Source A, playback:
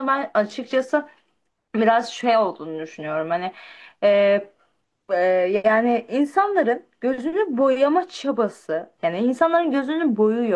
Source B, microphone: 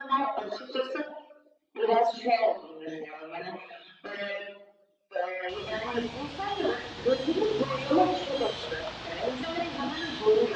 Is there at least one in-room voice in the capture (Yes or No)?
No